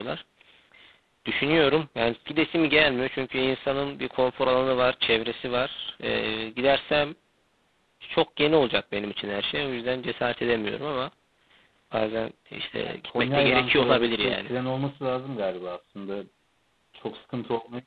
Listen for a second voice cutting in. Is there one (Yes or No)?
Yes